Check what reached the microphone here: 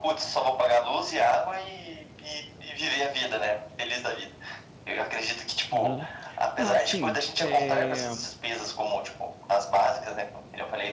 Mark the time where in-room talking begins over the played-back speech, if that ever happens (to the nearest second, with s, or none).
6 s